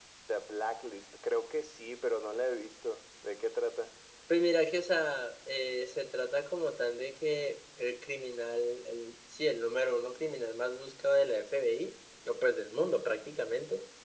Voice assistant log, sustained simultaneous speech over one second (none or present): none